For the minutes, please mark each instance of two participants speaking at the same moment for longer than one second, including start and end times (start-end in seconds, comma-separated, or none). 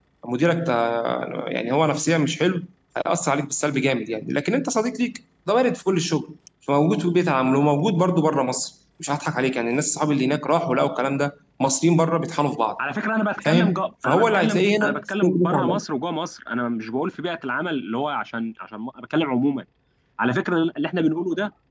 13.4-15.8